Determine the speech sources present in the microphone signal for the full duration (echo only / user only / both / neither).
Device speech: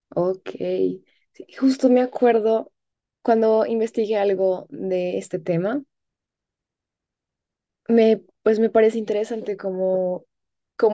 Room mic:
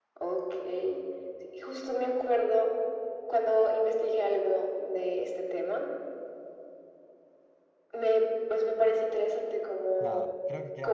both